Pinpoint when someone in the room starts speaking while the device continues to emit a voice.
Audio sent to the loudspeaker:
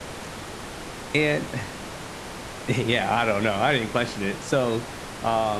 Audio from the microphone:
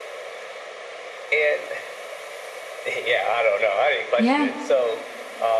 4.2 s

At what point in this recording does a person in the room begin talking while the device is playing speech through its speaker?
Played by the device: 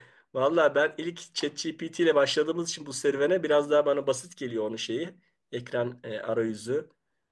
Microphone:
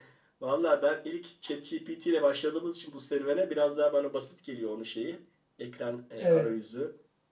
6.2 s

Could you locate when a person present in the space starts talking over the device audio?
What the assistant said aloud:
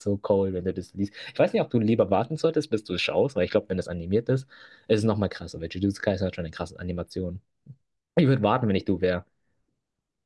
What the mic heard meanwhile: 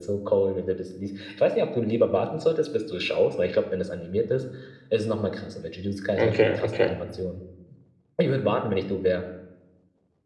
6.2 s

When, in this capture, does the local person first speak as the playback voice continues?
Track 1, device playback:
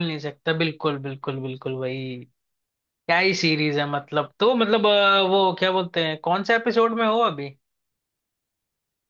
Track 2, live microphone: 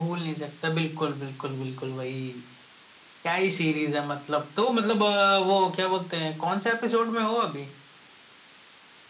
none

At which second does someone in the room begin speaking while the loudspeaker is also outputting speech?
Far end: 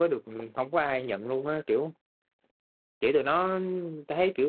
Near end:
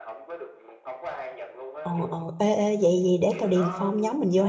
1.8 s

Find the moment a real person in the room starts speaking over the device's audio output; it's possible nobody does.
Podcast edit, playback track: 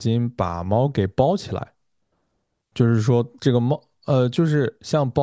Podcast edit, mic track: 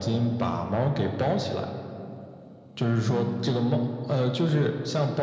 3.0 s

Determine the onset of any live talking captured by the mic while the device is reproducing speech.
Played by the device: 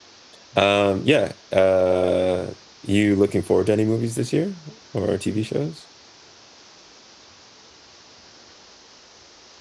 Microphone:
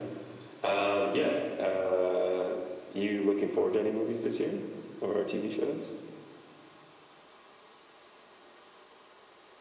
none

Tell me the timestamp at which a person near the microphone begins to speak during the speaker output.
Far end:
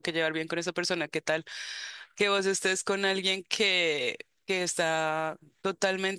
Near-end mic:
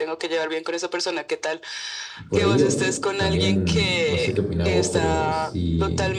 2.3 s

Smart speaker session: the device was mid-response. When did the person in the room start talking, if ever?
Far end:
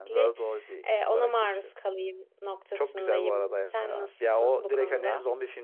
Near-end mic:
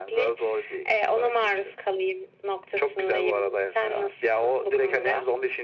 none

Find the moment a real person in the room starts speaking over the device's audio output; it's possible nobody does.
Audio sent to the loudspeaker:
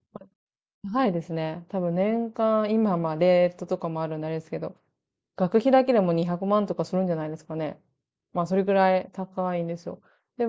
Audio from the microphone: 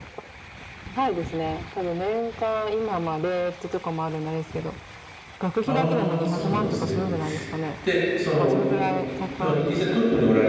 5.6 s

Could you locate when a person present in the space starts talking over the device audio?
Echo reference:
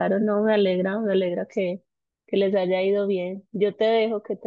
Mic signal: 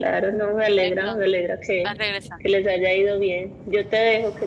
0.8 s

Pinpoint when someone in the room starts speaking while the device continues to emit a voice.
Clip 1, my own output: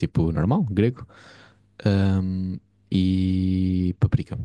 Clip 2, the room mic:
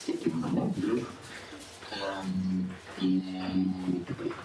none

